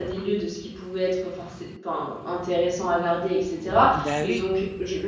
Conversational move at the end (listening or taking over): listening